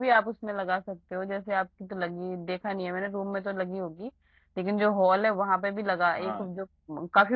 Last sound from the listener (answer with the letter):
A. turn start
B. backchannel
B